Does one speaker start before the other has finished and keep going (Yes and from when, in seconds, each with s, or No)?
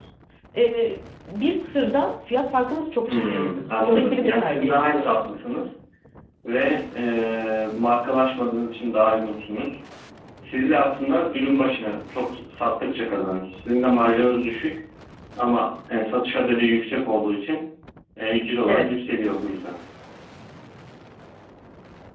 Yes, from 3.1 s